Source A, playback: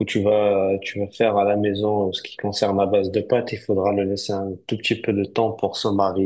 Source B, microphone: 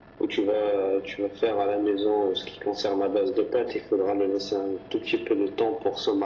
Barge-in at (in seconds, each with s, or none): none